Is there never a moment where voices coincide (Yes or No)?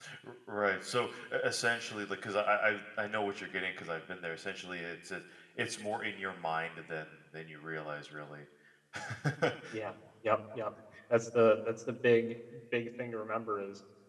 Yes